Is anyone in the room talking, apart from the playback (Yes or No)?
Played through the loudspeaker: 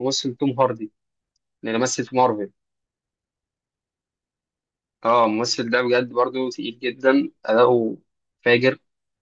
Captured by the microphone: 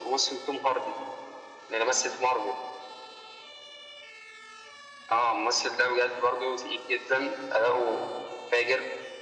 No